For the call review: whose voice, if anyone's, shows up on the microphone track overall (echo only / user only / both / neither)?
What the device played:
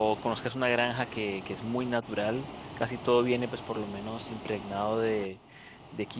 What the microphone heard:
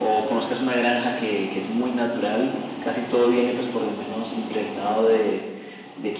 echo only